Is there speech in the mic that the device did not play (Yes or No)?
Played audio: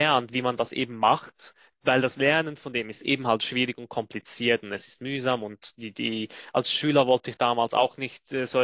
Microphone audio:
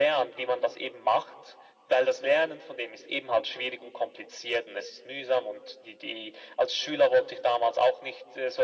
No